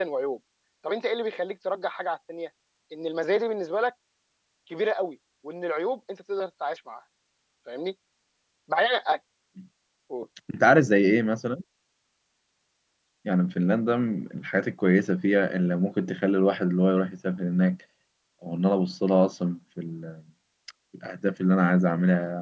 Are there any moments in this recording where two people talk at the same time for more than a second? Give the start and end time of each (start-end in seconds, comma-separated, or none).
none